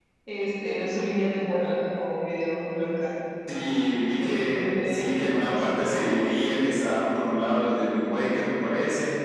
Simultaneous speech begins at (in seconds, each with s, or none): 3.5 s